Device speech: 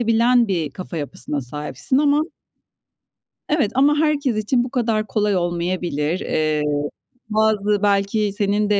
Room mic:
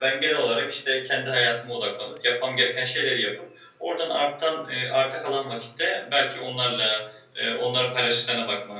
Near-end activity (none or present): present